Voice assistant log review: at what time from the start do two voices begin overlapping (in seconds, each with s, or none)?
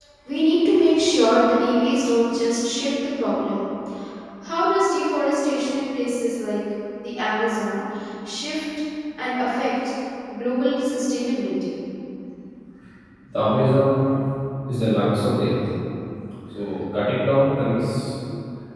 none